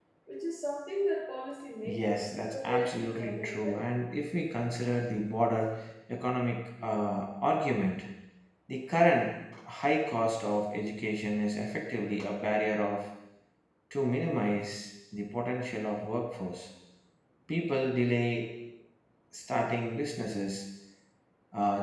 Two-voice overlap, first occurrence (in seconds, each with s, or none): 1.9 s